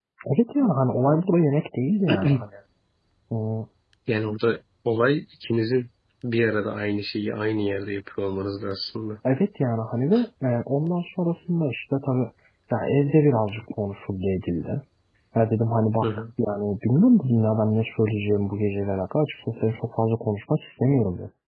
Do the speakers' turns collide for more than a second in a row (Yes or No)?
No